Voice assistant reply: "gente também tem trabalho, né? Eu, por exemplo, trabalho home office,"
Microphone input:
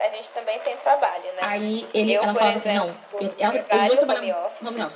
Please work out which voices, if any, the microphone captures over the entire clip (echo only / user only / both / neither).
both